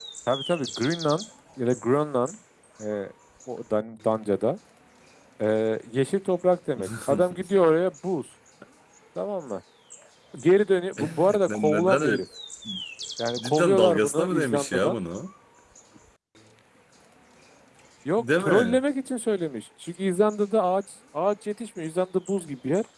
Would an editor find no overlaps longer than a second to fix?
No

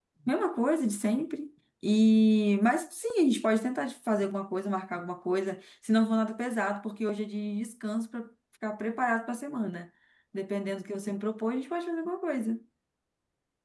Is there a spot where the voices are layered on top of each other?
No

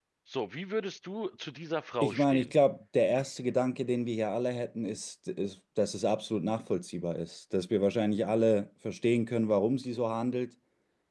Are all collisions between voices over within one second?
Yes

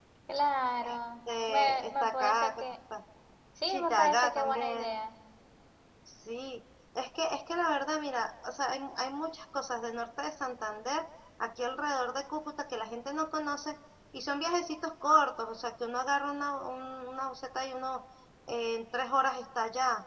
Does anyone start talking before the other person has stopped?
Yes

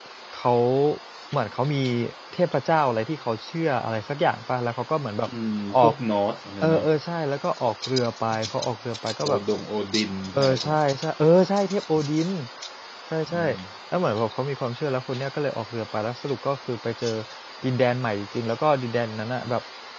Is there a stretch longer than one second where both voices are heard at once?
No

